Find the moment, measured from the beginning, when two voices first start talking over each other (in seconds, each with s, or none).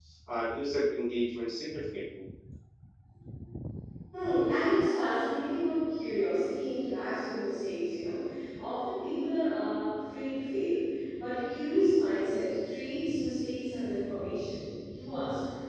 none